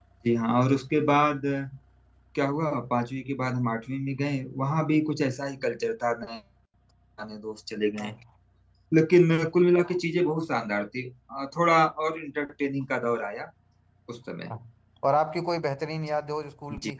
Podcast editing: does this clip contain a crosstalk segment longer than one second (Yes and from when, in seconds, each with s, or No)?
No